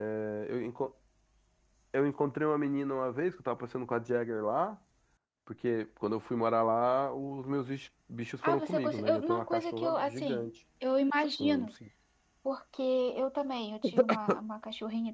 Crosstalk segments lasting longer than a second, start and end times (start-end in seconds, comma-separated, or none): 8.4-10.5